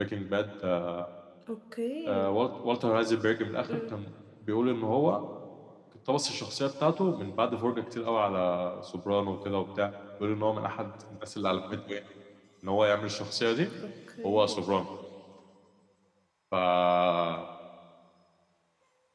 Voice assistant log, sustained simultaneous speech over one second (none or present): none